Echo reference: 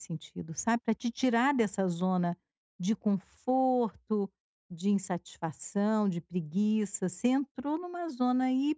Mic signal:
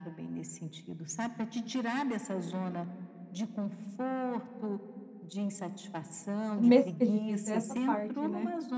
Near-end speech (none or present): present